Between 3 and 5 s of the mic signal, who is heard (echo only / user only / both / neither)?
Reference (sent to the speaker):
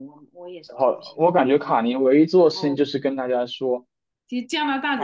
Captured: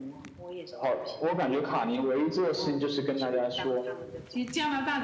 both